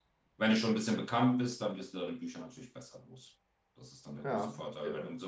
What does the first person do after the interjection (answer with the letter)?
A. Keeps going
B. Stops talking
A